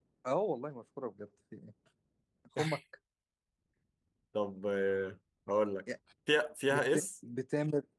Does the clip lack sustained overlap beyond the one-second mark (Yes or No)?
Yes